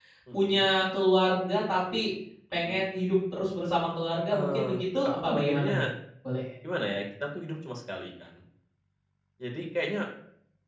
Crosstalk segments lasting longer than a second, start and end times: 4.3-5.9

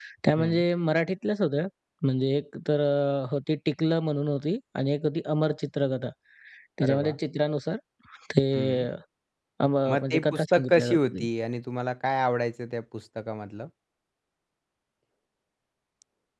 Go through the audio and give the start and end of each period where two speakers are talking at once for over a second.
9.9-11.3

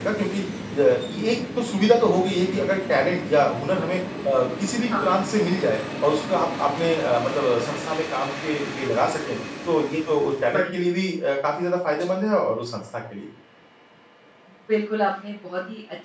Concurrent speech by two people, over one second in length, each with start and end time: none

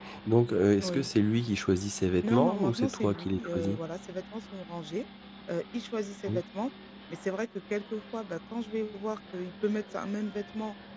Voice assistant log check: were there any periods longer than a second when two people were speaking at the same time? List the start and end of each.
2.2-3.8

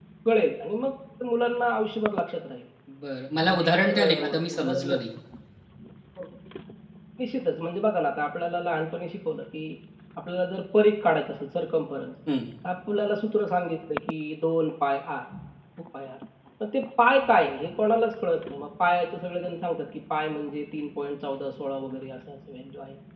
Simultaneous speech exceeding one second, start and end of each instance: 3.5-5.0

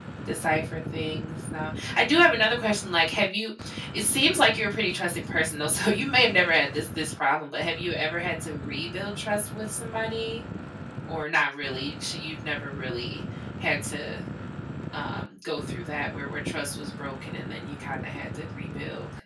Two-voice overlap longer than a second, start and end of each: none

